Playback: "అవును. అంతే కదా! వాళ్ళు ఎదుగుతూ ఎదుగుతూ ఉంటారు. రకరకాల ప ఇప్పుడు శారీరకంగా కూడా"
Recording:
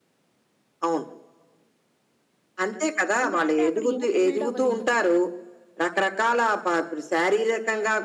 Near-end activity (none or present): present